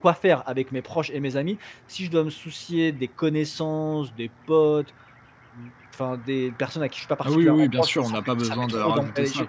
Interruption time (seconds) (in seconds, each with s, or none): 7.2 s